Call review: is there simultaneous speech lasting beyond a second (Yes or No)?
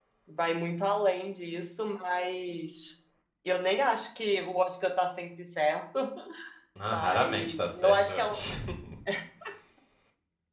Yes